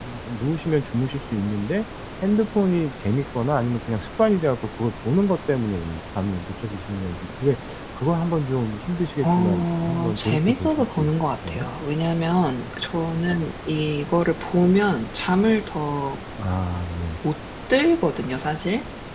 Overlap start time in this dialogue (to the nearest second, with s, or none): 9 s